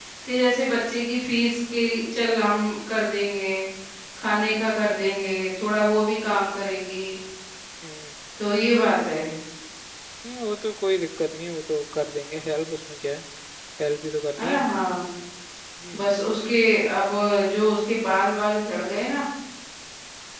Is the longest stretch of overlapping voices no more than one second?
Yes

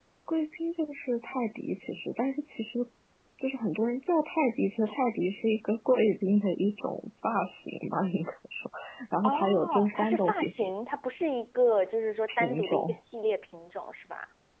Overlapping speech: Yes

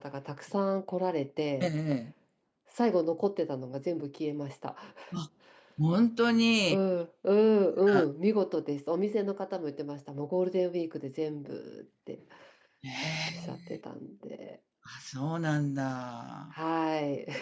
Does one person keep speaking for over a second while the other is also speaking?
No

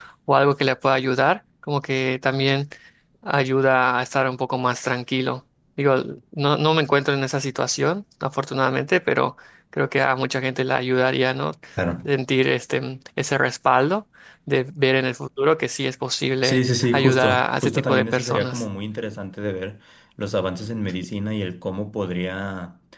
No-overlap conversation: No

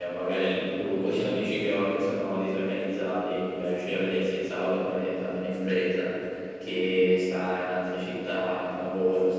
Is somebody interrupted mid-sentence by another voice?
No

